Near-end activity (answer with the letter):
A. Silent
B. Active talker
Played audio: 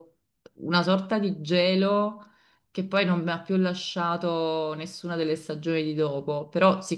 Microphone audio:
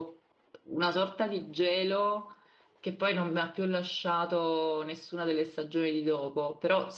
A